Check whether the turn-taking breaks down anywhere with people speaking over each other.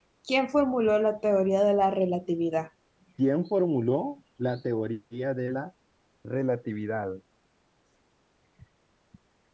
No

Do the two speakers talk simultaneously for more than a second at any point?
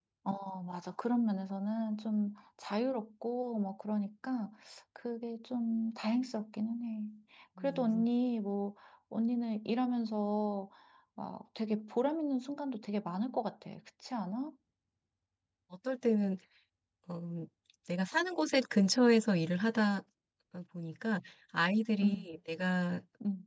No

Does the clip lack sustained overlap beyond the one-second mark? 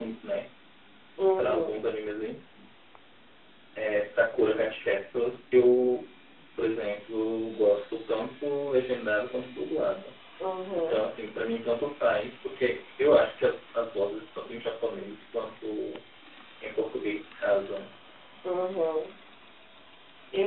Yes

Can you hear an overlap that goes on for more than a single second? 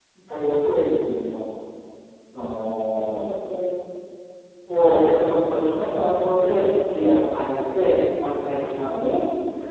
No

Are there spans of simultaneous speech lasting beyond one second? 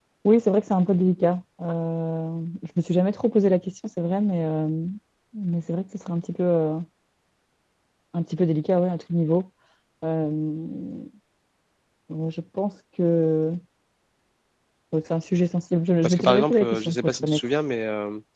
Yes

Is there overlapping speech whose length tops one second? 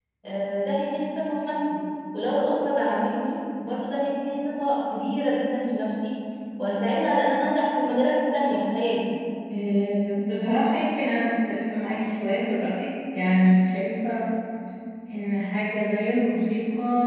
No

